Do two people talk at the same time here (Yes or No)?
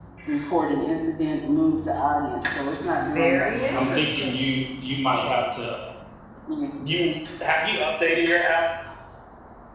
Yes